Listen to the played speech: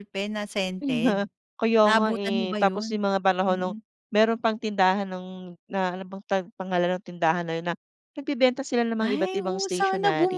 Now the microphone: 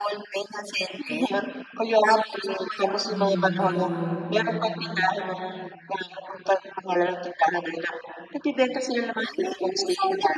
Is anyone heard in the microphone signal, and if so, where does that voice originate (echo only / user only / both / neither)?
both